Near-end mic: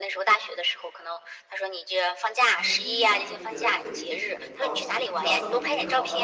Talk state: both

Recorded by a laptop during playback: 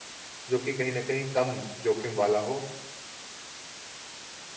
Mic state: user only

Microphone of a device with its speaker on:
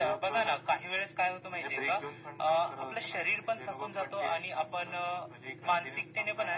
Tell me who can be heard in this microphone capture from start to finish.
echo only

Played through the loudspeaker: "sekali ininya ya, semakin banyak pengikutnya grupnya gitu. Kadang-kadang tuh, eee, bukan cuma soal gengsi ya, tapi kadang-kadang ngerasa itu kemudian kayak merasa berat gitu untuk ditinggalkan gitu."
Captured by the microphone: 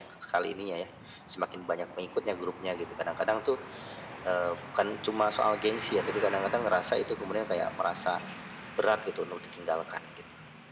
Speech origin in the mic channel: echo only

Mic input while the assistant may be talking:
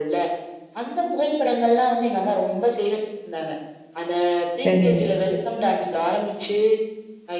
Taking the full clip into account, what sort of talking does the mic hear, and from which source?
both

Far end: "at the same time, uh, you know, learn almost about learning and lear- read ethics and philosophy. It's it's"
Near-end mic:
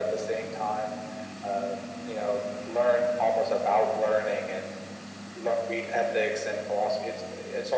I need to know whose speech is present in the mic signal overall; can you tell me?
echo only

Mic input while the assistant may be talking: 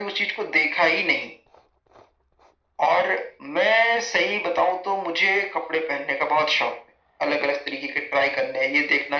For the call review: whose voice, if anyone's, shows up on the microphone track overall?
echo only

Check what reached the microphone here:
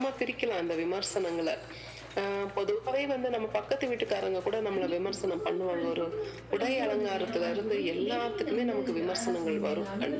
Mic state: both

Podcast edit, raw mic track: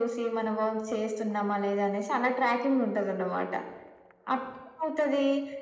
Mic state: echo only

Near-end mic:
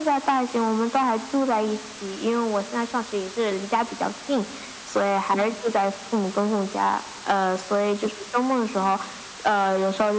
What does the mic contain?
echo only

